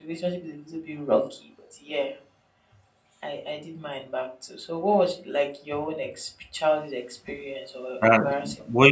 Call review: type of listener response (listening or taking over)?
taking over